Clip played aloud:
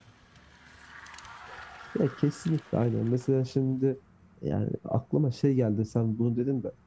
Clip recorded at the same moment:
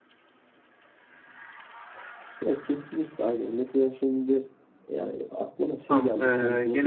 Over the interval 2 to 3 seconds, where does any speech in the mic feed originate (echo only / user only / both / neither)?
echo only